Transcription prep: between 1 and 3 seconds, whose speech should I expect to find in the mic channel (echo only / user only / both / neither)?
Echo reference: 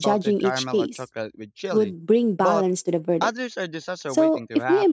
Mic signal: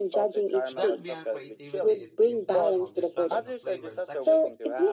both